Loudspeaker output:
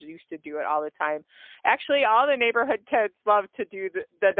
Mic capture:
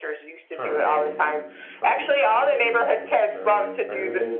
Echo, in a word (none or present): present